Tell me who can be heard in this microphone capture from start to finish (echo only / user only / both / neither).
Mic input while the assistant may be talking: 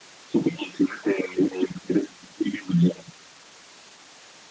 echo only